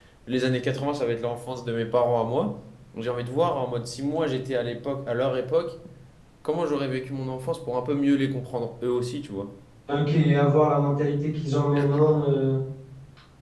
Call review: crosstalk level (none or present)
none